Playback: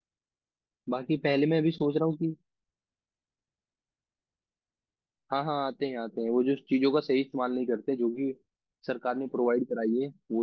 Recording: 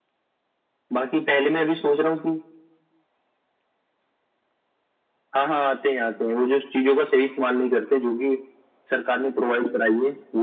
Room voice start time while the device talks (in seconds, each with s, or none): none